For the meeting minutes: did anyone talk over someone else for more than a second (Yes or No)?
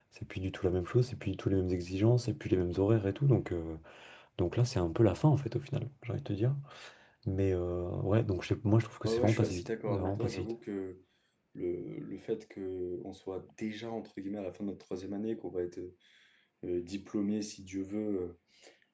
Yes